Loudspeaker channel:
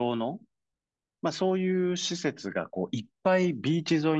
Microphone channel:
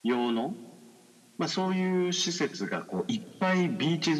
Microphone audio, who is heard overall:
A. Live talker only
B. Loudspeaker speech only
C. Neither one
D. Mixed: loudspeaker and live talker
B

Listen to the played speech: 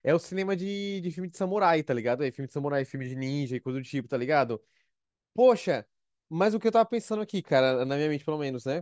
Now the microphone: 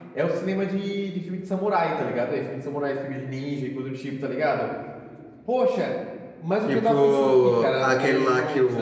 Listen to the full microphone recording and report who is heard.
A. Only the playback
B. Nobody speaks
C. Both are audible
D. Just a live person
C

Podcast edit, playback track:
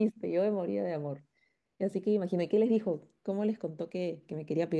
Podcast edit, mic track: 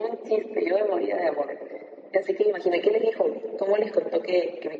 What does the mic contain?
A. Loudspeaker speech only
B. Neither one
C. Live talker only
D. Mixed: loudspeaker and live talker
A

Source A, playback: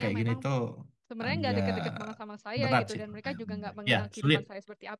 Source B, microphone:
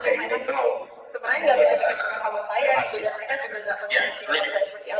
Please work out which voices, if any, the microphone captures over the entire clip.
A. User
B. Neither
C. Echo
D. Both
C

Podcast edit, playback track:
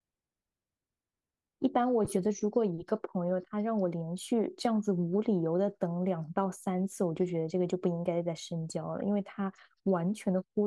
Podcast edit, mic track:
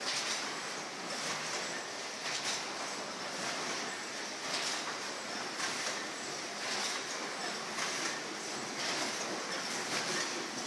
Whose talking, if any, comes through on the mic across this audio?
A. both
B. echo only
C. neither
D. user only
C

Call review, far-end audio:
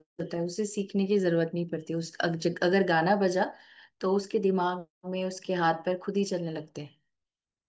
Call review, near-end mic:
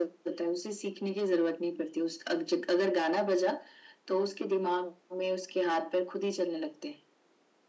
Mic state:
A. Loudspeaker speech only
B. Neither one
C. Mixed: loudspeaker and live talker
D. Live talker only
A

